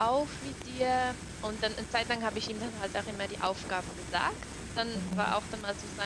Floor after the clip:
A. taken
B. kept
B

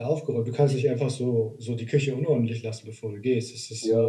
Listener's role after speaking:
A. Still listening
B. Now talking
B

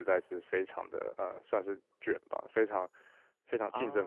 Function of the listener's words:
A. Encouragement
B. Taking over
A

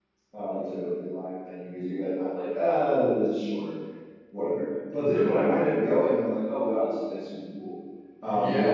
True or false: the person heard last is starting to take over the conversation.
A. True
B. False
A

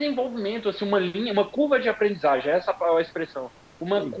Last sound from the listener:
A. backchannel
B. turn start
A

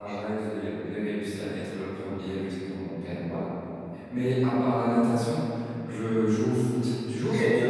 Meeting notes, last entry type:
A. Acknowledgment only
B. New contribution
B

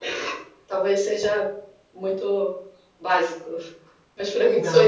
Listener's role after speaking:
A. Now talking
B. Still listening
A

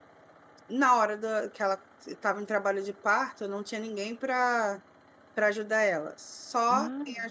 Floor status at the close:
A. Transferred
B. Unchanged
B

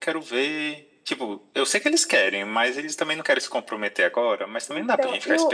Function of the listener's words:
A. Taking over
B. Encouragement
A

